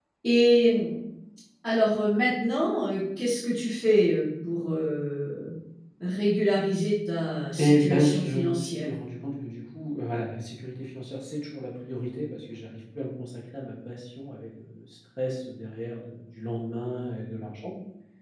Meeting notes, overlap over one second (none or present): present